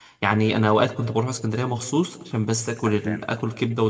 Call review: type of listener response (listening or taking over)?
listening